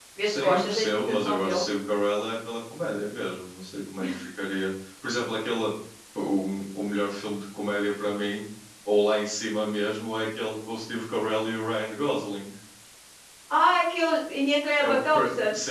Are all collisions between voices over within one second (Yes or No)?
No